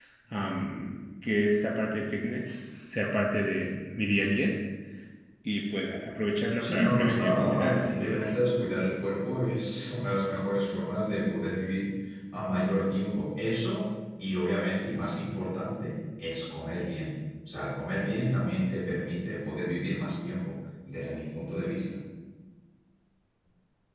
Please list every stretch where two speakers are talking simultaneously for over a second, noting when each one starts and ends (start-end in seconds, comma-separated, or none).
6.6-8.4